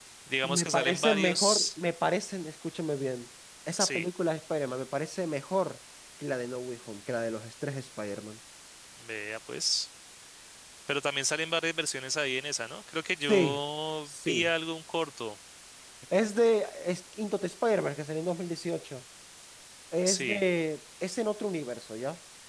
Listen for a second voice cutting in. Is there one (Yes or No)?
Yes